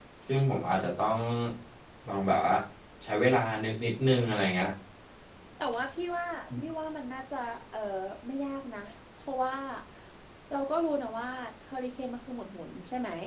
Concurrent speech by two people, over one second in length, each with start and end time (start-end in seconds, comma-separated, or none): none